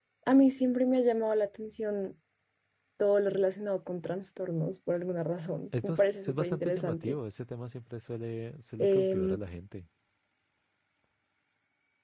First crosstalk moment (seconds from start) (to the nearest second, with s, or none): 6 s